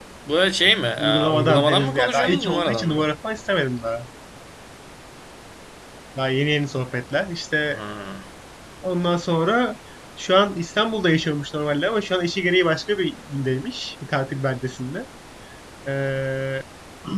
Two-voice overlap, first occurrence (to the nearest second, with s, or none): 1 s